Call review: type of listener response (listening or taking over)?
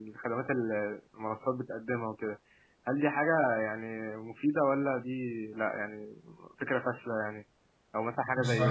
listening